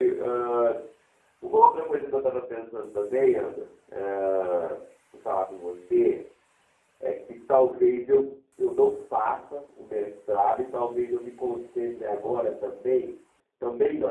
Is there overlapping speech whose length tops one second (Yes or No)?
No